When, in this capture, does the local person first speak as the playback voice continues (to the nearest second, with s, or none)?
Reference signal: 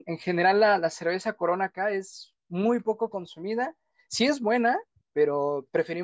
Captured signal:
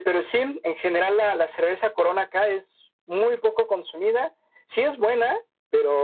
none